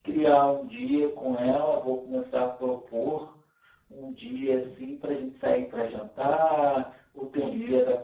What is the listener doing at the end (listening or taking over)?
listening